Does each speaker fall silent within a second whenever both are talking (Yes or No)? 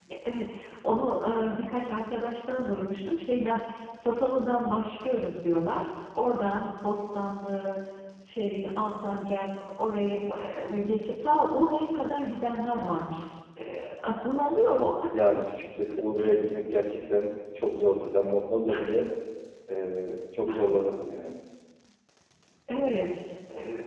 Yes